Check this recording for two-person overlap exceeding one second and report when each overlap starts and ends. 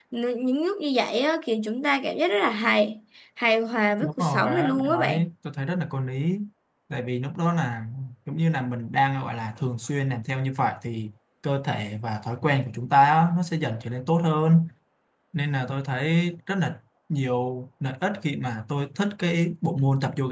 4.0-5.3

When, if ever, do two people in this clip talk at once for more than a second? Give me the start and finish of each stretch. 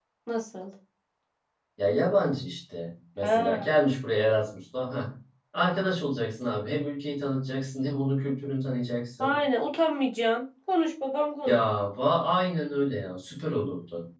none

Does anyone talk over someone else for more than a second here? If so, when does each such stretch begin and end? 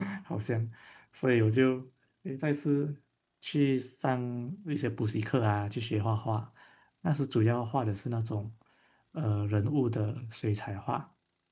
none

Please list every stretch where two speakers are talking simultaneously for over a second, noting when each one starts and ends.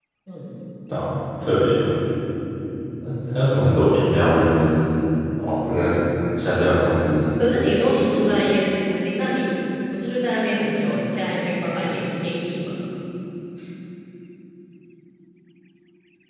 none

